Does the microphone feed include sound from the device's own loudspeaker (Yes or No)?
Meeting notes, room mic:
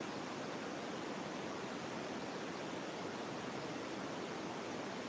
No